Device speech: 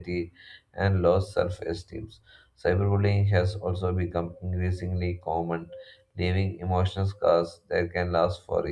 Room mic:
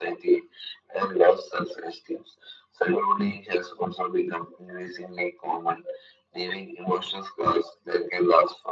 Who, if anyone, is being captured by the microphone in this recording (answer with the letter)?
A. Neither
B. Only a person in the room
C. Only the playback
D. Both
C